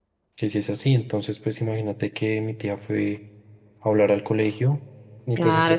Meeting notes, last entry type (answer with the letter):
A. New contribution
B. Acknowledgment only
A